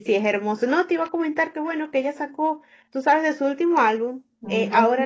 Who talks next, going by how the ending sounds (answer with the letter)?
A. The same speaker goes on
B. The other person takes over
A